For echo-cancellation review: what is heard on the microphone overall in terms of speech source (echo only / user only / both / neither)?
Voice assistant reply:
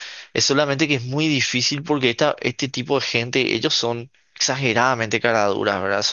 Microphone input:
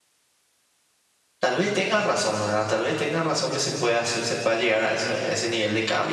user only